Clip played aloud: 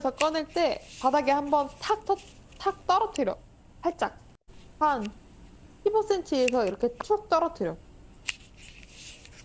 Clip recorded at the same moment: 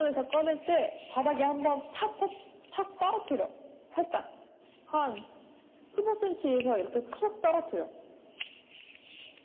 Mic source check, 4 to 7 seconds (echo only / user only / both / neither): echo only